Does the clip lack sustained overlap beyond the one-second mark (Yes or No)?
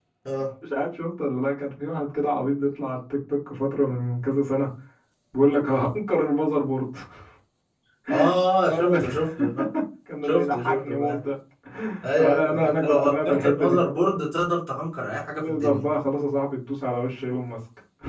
No